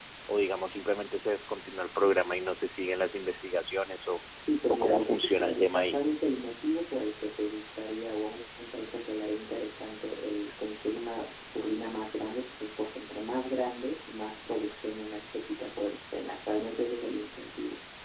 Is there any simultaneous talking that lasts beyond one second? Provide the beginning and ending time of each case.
4.7-6.0

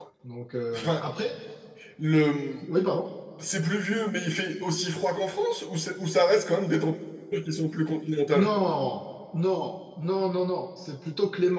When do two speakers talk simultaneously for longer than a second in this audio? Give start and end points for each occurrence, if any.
none

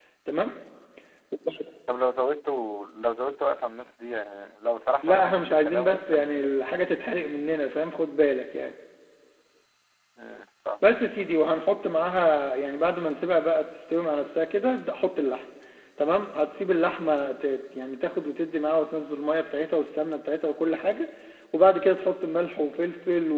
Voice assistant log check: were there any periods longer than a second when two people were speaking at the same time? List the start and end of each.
5.0-6.5

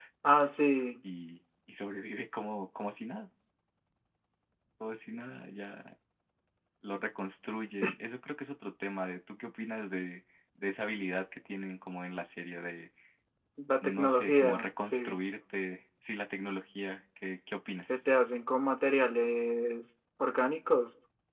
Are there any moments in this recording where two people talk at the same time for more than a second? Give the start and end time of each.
13.8-15.2

